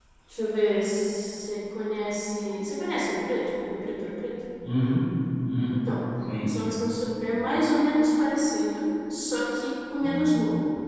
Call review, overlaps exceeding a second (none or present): none